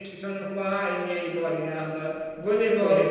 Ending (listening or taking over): listening